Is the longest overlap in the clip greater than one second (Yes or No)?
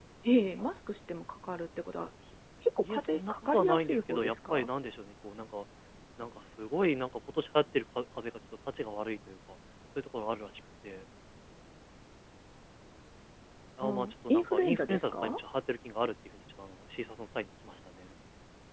Yes